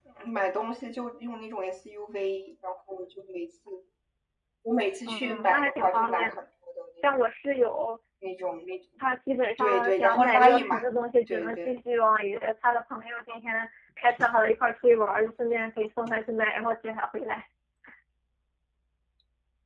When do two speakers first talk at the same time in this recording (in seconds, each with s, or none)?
5.1 s